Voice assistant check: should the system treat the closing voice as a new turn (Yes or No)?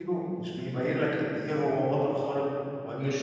No